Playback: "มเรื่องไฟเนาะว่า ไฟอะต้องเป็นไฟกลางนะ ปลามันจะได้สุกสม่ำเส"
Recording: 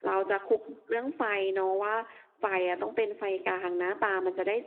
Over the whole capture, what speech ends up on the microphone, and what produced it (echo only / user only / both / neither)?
echo only